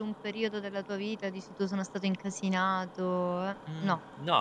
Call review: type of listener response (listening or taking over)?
taking over